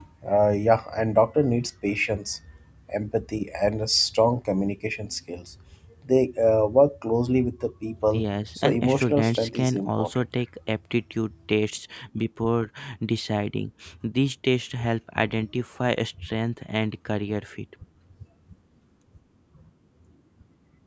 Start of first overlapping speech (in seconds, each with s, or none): 8.1 s